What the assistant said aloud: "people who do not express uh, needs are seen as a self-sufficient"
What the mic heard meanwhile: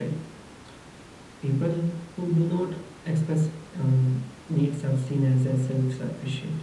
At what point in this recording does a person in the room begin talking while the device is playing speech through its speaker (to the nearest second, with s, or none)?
none